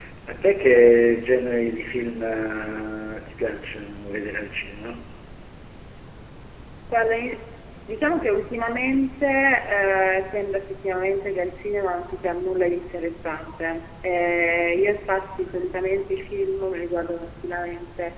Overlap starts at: none

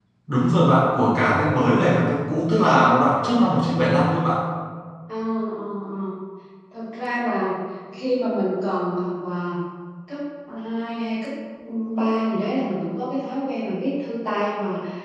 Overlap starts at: none

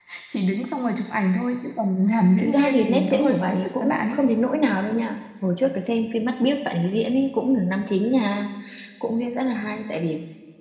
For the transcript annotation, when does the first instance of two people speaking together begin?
2.4 s

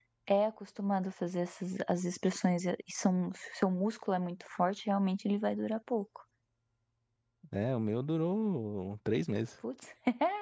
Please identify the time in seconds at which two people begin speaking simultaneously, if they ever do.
none

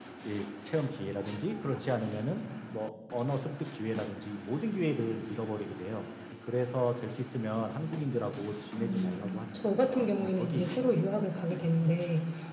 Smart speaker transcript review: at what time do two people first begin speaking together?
8.8 s

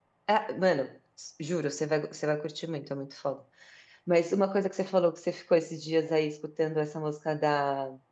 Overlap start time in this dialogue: none

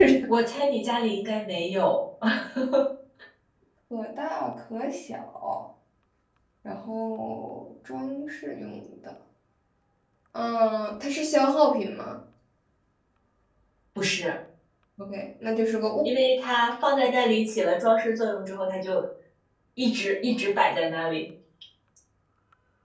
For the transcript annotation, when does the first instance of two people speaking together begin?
none

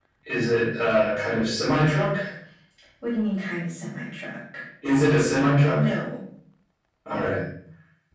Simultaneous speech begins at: none

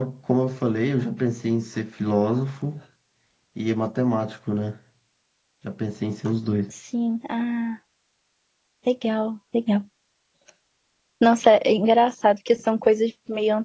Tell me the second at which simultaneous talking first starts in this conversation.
none

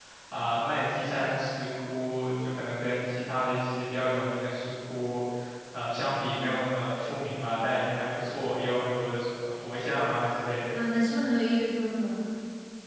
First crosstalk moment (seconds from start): none

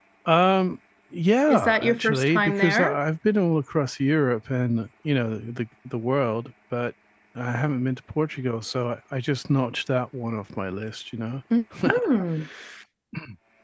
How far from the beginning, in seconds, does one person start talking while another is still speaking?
1.5 s

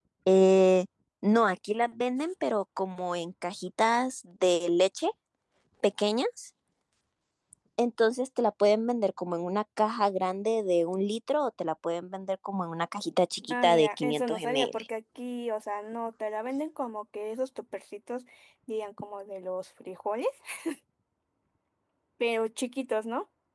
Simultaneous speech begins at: 13.5 s

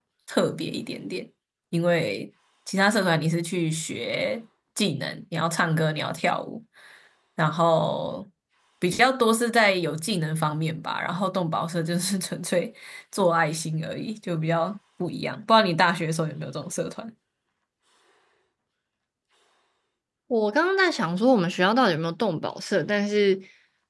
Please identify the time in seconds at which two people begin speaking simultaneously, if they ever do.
none

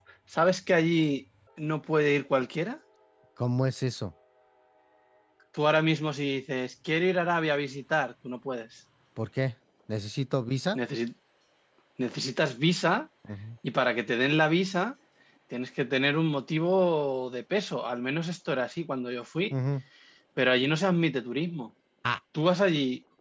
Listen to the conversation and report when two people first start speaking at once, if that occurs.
none

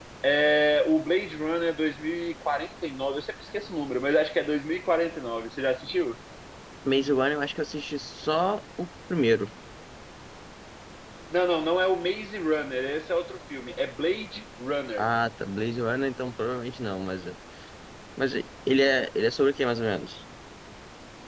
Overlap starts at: none

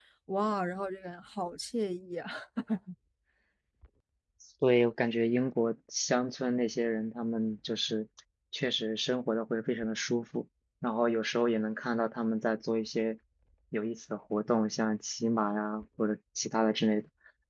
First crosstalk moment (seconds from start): none

